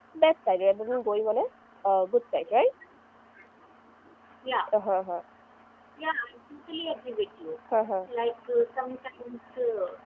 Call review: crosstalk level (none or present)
none